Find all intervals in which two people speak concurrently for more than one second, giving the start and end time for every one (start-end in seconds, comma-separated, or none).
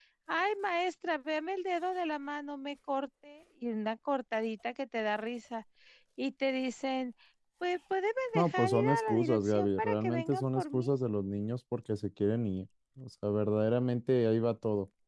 8.4-10.9